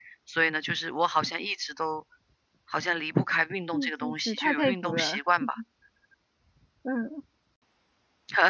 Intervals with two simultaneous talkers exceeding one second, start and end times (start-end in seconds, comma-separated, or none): 3.7-5.2